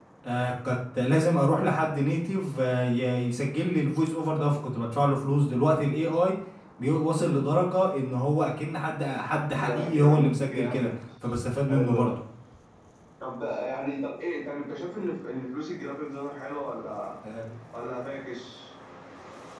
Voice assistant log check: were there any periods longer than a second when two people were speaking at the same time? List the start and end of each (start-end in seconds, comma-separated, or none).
9.5-10.9